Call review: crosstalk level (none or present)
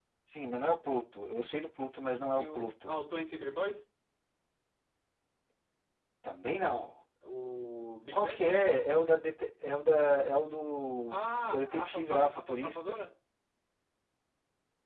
present